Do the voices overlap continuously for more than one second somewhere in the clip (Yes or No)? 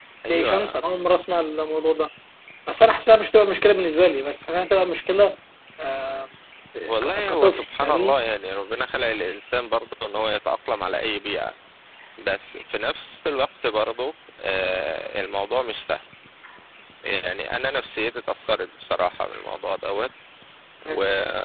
Yes